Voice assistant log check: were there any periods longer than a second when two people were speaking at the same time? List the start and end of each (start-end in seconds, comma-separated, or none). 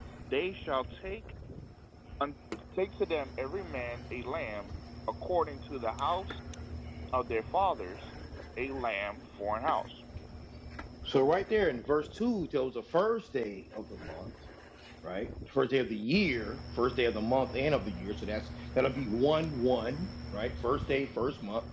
none